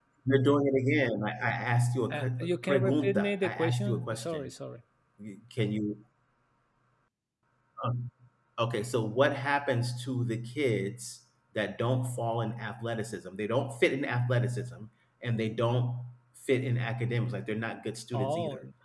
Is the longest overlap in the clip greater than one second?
Yes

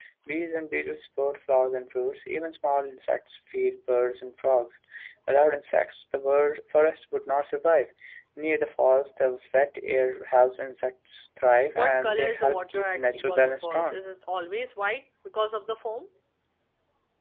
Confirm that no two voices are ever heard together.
No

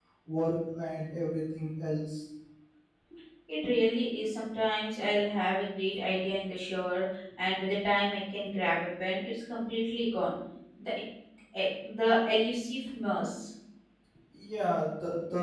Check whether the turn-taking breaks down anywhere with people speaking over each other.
No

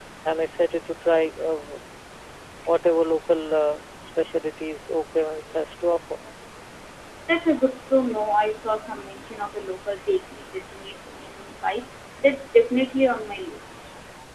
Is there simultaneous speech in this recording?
No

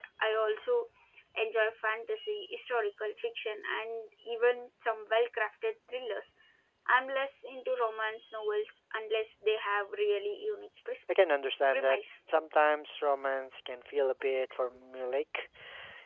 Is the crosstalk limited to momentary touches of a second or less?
Yes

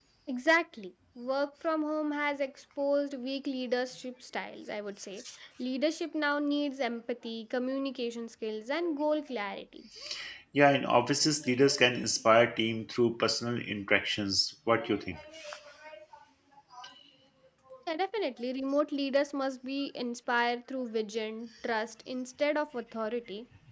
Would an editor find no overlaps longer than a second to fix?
Yes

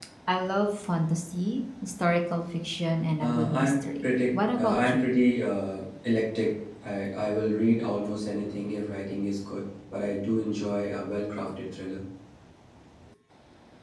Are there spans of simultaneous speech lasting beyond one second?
Yes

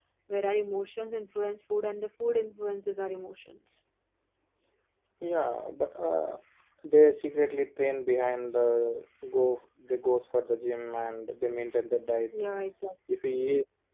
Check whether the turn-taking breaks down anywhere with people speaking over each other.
No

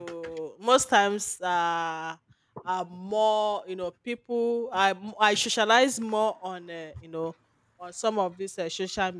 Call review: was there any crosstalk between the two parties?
No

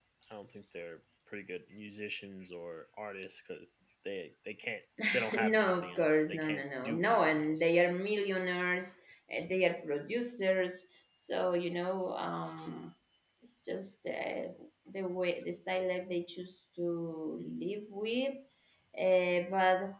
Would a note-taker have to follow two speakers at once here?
Yes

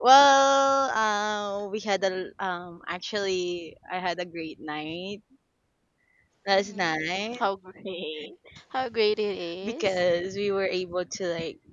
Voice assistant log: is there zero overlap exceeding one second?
Yes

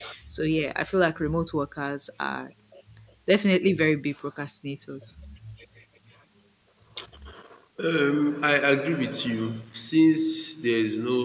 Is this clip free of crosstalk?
Yes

